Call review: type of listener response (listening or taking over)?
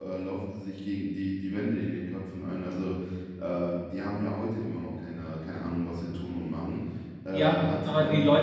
taking over